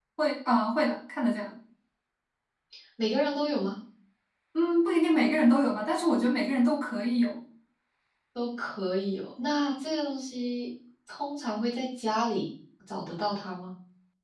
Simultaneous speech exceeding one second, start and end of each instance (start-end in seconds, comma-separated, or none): none